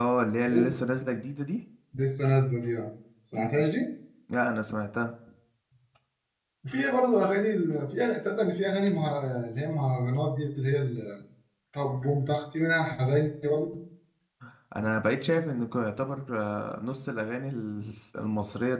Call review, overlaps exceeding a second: none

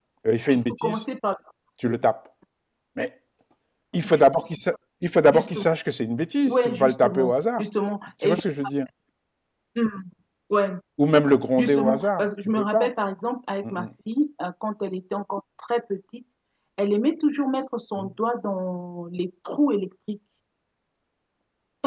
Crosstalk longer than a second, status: present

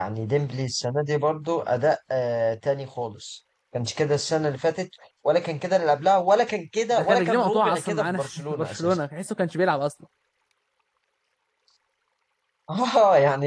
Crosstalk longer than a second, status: present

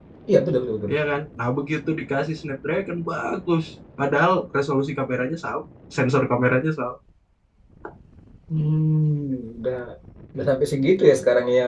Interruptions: none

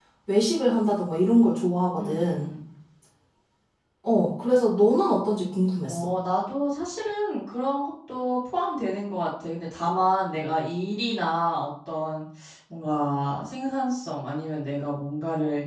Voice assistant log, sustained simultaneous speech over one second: none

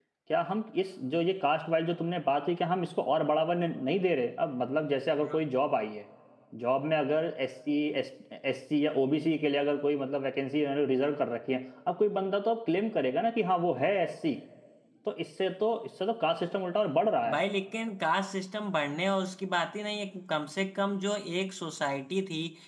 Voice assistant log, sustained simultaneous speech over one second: none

